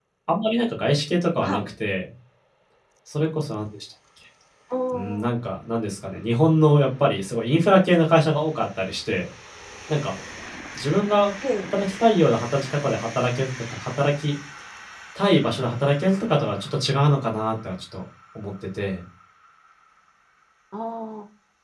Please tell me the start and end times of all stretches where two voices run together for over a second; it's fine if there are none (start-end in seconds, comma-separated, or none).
none